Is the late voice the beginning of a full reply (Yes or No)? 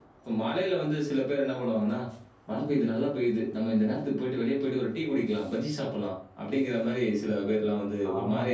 Yes